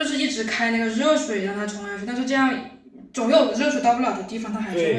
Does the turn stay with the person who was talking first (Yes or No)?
No